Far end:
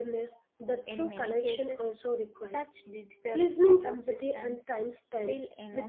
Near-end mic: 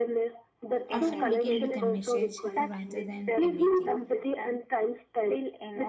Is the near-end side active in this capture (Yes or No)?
Yes